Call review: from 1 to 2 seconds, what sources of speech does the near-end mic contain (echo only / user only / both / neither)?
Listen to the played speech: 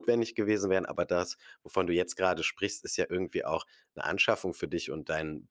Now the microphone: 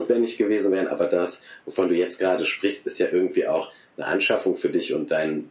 echo only